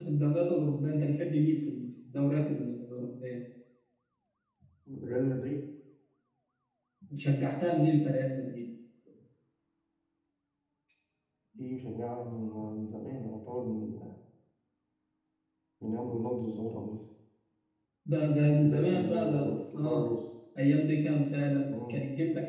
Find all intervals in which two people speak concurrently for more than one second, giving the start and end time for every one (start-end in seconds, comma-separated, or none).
18.6-20.1